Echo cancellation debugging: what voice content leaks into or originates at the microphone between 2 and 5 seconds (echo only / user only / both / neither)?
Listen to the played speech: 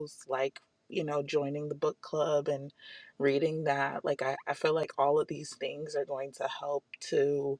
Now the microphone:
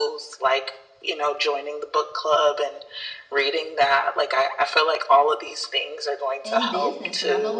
echo only